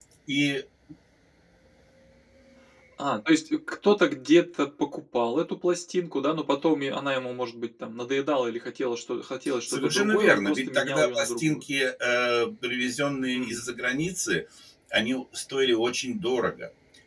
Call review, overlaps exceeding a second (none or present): present